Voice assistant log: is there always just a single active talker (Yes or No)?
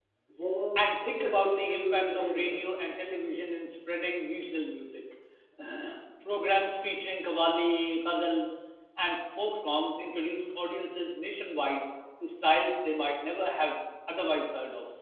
No